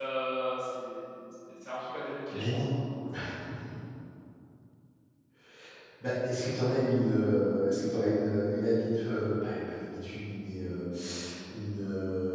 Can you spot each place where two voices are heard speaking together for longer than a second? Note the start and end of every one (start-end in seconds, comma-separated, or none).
none